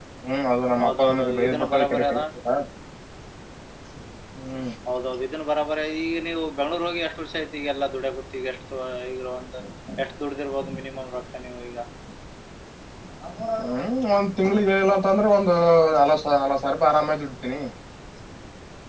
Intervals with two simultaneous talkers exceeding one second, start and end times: 0.8-2.2

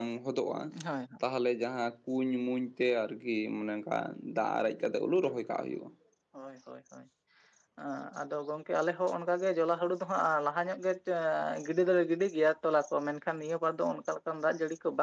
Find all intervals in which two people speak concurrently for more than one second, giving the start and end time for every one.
none

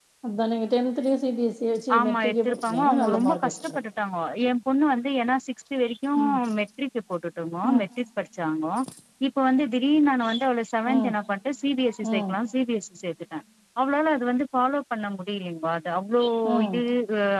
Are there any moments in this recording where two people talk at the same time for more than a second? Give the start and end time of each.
2.0-3.8

